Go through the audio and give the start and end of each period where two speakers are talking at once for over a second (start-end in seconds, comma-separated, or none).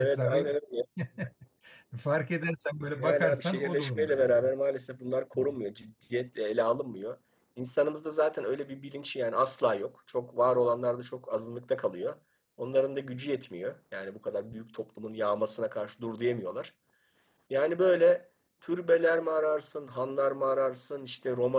3.0-4.5